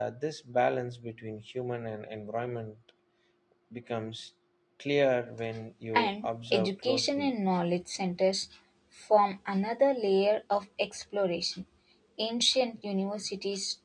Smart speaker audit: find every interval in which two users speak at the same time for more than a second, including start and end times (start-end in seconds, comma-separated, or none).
5.9-7.3